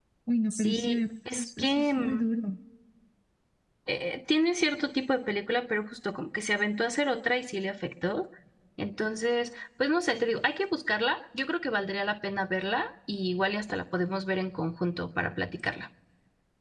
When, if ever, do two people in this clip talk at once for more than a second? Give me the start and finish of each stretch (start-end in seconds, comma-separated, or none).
0.5-2.3